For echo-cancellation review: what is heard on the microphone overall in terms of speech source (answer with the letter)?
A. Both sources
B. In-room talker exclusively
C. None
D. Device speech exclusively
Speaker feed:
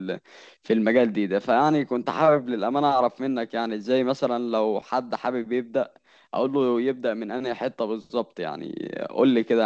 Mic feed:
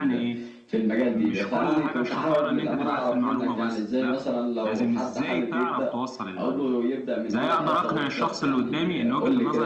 A